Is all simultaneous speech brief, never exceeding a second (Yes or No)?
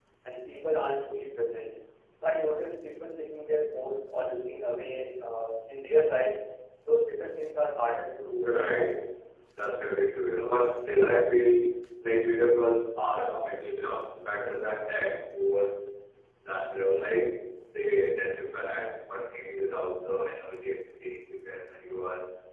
Yes